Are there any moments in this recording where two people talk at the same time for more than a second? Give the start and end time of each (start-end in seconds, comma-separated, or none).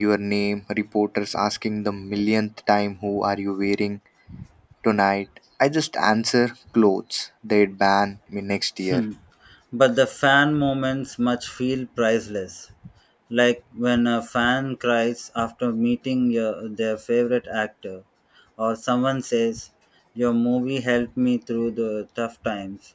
none